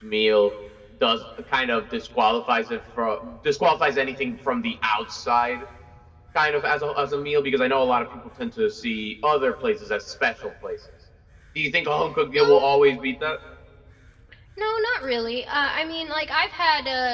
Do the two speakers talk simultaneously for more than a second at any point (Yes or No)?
No